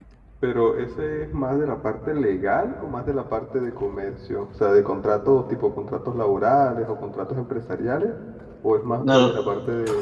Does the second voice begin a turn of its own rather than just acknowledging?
No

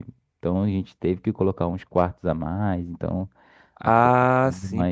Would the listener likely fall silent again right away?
No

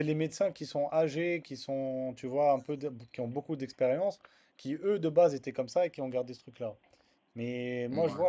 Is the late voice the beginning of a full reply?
No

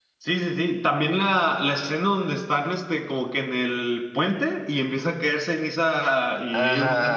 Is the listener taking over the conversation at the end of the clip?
Yes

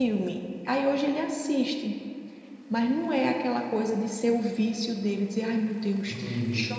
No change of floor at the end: Yes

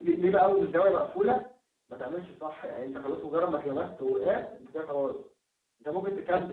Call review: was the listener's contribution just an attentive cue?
Yes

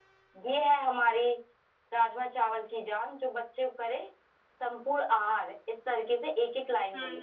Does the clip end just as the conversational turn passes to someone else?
Yes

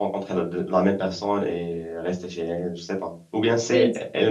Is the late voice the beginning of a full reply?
No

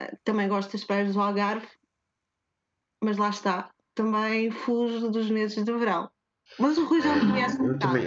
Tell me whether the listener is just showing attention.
No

